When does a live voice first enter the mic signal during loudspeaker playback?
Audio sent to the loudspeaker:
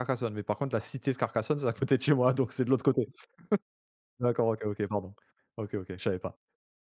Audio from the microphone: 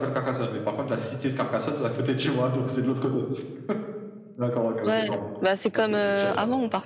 4.8 s

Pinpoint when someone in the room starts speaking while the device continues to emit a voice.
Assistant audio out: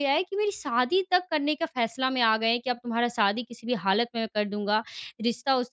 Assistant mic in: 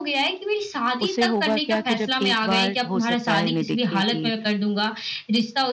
1.0 s

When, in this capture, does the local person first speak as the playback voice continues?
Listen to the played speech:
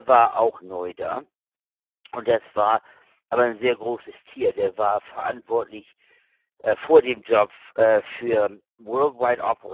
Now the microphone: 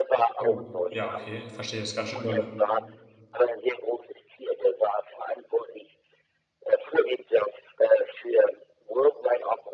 0.4 s

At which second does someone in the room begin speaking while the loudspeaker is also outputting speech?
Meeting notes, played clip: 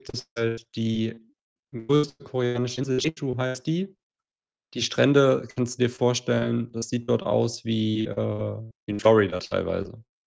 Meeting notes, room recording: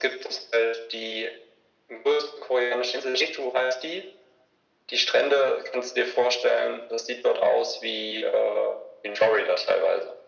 none

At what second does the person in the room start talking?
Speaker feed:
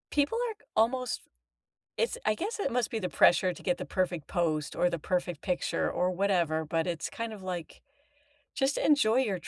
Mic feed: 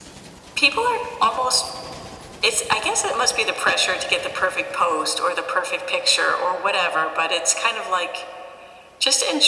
none

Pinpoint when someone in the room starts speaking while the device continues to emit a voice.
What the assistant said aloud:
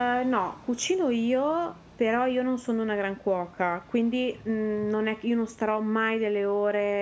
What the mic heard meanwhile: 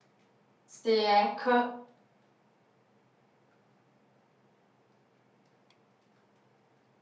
0.7 s

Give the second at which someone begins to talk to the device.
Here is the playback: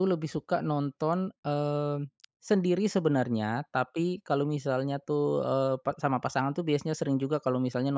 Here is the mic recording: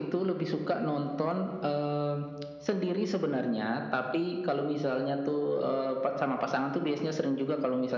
none

